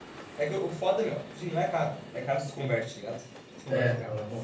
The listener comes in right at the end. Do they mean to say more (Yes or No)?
Yes